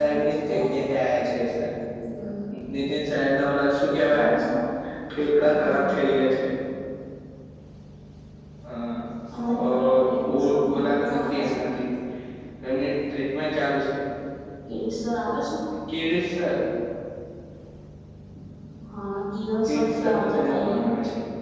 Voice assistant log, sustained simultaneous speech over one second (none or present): present